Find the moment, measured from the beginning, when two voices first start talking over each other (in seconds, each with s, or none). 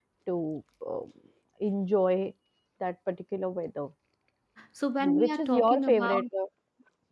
5.0 s